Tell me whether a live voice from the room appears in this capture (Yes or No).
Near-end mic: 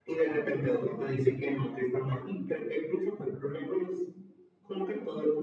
No